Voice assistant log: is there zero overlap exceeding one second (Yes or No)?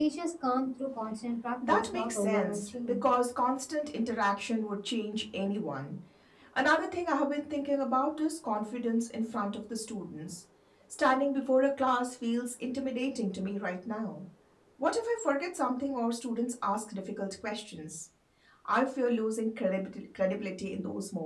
No